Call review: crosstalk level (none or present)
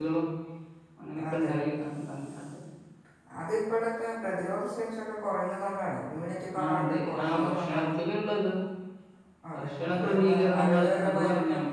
present